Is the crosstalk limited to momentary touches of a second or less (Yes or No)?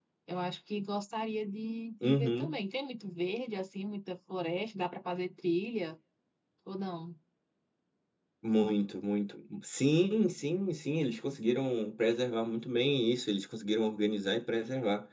Yes